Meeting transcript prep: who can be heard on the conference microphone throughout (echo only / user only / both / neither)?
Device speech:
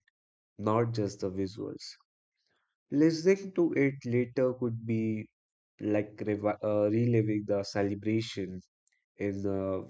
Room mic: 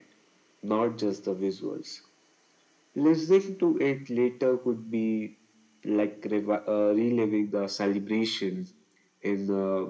echo only